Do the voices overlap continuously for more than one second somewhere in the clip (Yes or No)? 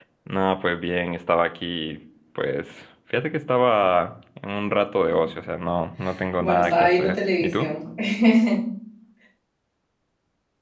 Yes